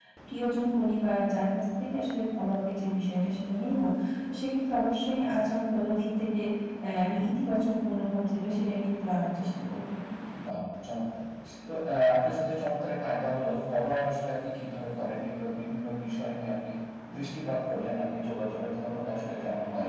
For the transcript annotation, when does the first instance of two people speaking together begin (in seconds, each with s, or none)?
none